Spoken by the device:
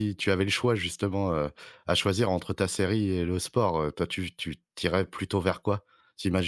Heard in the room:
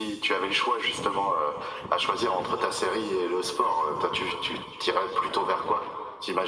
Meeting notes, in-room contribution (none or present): none